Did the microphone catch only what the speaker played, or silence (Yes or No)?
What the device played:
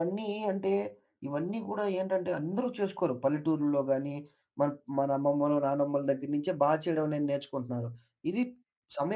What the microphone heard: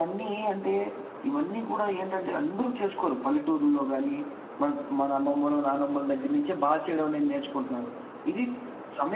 Yes